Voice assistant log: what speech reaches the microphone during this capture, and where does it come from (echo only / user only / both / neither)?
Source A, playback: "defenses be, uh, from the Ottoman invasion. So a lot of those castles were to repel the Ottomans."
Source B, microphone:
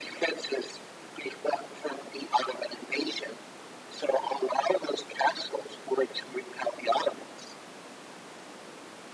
echo only